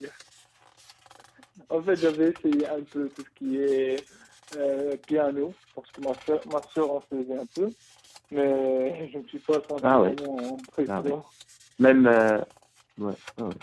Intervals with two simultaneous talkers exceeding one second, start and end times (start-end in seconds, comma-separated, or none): none